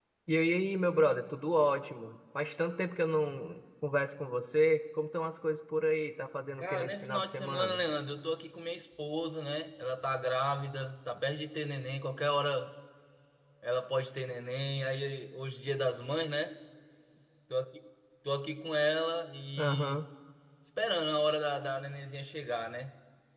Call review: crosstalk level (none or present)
present